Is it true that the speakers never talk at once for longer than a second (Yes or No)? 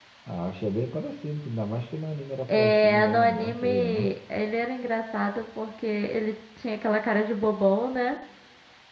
No